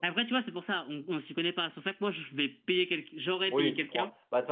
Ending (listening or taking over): taking over